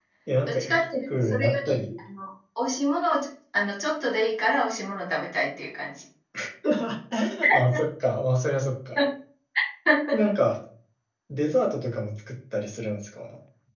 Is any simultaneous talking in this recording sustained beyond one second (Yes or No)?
Yes